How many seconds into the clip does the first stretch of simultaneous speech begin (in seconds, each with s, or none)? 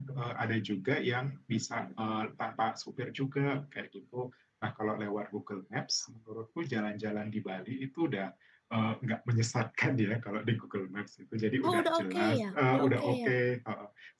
11.6 s